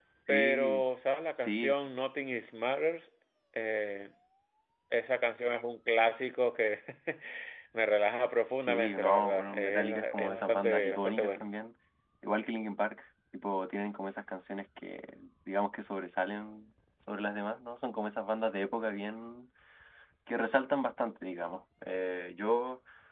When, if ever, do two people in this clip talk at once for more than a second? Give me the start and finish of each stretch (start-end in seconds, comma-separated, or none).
8.6-11.5